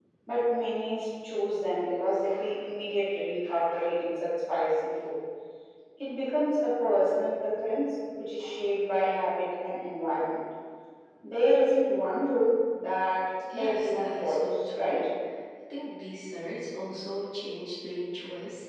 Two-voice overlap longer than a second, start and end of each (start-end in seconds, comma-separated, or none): 13.6-15.1